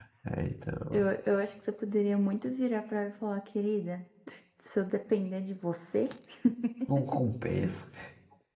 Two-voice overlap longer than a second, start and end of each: none

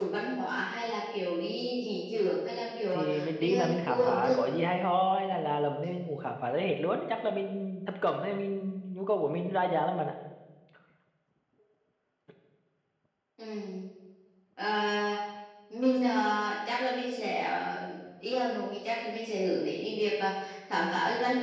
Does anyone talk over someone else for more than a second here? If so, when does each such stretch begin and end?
2.9-4.4

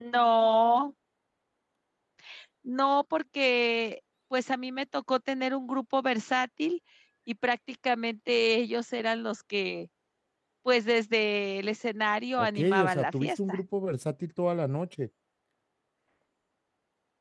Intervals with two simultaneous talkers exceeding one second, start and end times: 12.4-13.6

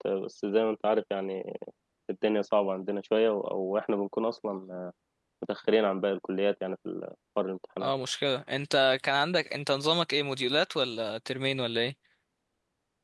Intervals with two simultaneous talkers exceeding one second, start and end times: none

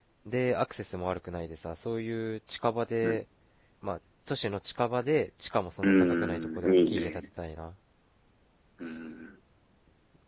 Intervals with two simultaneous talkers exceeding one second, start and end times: 5.8-7.2

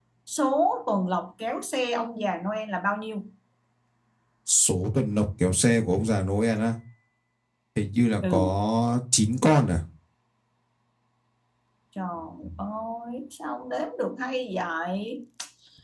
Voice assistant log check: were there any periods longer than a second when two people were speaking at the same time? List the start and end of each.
none

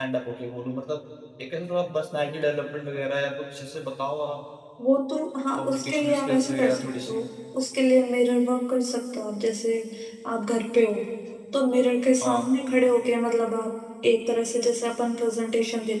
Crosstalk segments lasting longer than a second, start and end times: 5.6-7.2

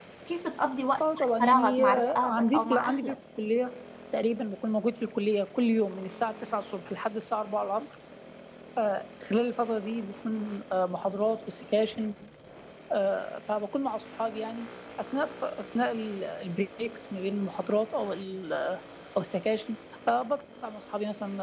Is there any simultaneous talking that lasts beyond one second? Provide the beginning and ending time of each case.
1.0-3.2

